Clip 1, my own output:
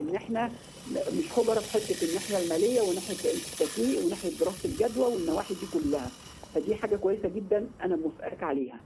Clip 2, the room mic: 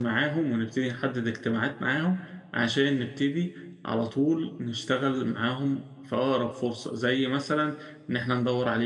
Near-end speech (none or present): present